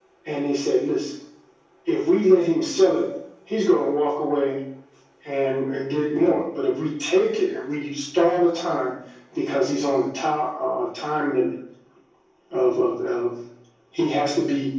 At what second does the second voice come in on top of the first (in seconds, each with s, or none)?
none